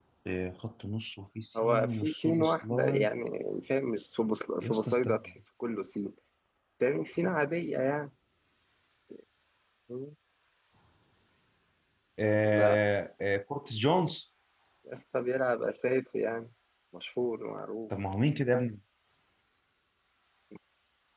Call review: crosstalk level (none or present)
present